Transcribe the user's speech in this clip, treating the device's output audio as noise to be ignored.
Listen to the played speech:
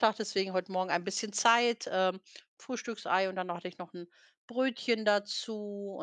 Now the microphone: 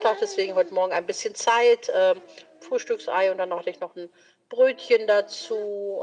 none

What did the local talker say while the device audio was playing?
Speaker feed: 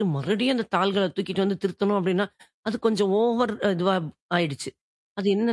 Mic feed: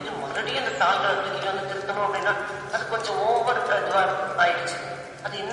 none

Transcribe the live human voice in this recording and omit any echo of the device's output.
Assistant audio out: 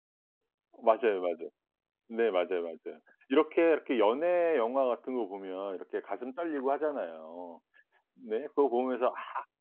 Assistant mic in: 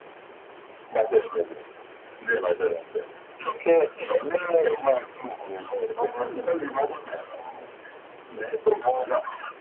어 그럼요.

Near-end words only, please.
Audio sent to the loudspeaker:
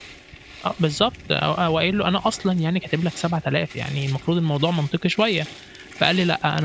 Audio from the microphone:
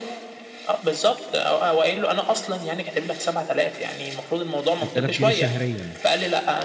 6000 جنيه شهريًا؟

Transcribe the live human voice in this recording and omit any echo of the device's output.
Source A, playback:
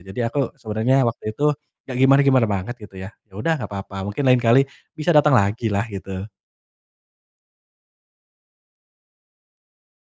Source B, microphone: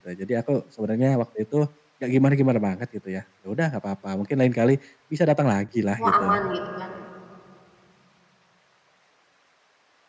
Oh, aman gitu, kan.

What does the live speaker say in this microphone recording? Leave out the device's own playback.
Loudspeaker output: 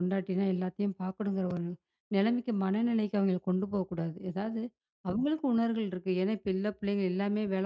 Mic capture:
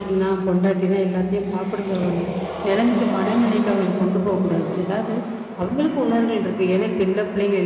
none

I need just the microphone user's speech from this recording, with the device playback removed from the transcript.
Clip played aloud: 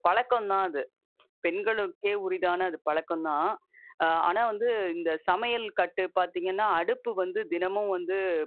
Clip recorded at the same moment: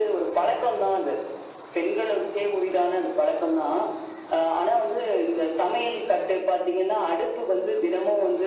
none

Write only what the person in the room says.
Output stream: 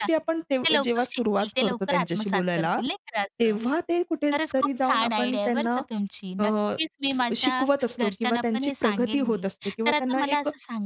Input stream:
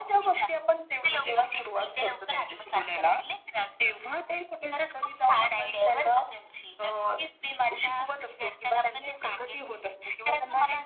none

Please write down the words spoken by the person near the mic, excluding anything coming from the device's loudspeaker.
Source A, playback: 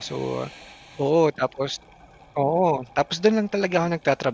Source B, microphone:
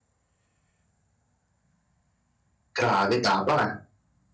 Grabe tapang, ah.

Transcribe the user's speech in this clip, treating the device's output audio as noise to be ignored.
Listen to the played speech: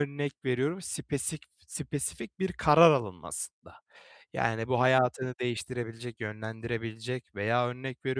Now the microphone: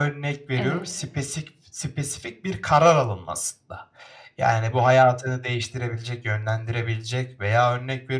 Evet.

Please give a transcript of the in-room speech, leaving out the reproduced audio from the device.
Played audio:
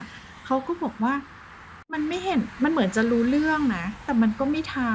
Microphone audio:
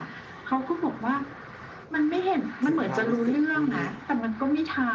ถึงความรู้สึกที่

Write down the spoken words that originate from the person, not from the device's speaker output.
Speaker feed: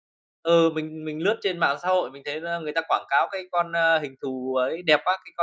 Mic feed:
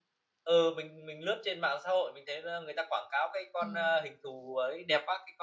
Ừm.

